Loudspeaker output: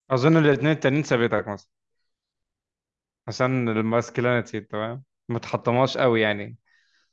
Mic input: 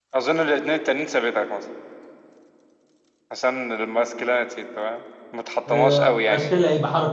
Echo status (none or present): present